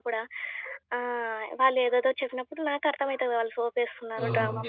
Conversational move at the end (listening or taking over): taking over